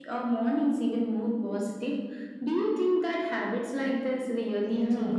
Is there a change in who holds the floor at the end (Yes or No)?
Yes